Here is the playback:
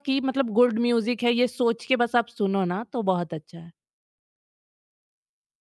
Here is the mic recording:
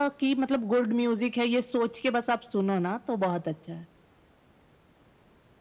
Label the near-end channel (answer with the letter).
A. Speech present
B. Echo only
B